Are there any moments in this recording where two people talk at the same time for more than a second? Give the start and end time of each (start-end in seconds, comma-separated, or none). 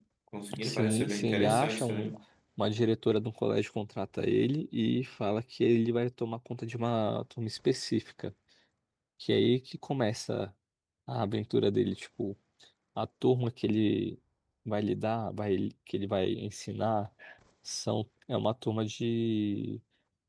0.6-2.1